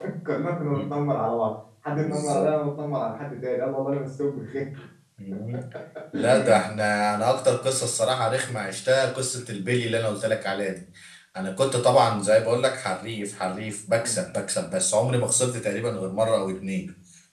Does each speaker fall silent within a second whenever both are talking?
Yes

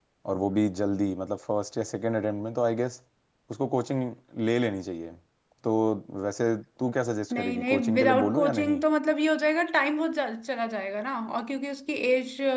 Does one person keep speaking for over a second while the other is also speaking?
Yes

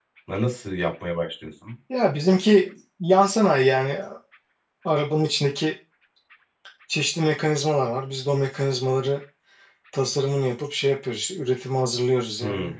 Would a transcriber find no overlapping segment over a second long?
Yes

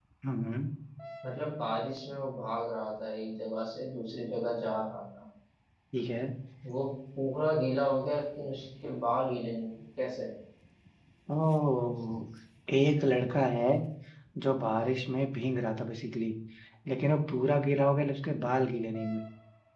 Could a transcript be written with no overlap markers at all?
Yes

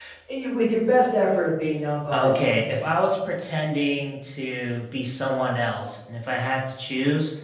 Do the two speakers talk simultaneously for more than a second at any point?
No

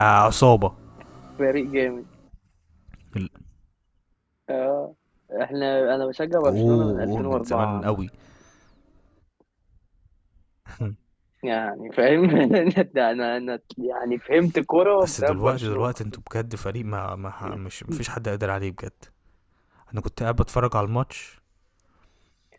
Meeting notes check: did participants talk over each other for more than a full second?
Yes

